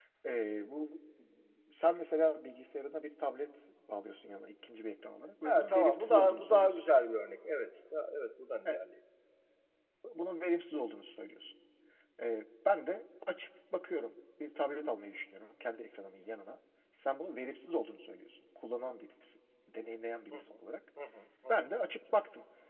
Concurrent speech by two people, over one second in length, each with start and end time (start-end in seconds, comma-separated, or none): 5.4-6.8